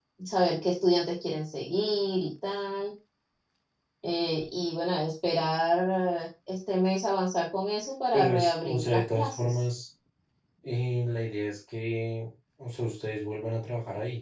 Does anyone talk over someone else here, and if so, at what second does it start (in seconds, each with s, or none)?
8.1 s